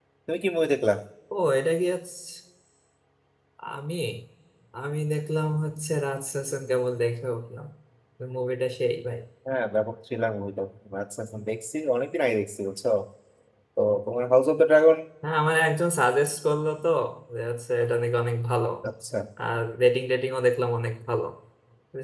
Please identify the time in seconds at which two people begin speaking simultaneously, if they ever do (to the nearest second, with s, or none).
none